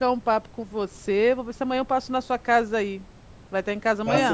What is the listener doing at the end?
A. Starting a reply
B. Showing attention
A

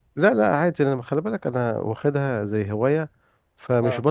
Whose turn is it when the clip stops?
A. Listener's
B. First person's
B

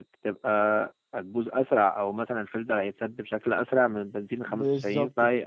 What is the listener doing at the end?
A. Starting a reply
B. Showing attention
A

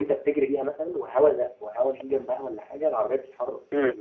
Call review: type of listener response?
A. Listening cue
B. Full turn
B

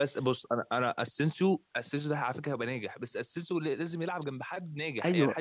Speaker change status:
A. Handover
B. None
A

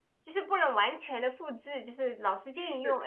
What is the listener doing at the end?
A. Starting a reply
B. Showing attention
B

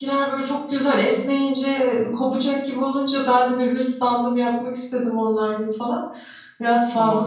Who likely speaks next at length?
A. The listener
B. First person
A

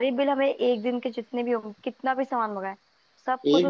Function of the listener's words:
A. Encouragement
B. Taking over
B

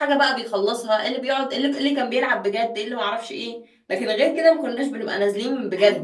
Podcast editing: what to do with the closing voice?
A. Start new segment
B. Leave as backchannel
A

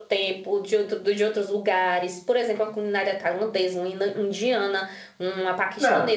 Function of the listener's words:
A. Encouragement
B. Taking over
B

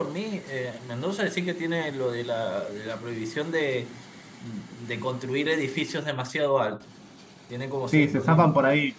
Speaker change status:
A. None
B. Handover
B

